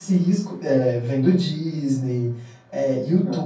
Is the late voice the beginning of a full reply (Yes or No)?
No